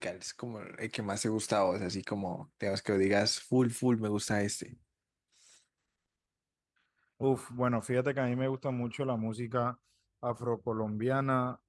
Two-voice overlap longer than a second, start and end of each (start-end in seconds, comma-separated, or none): none